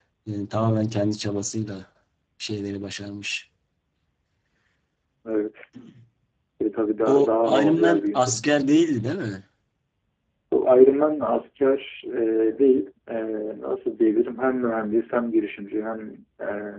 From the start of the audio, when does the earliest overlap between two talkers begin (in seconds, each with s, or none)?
7.0 s